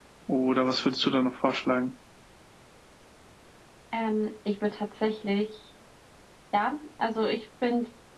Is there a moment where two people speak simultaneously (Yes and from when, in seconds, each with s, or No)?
No